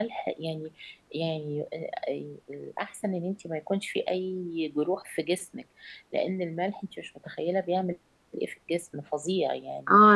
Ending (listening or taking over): taking over